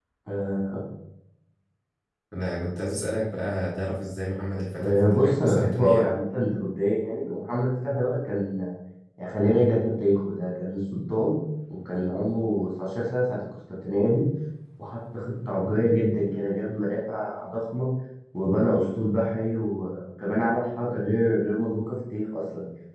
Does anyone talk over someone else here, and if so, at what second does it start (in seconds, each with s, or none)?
4.8 s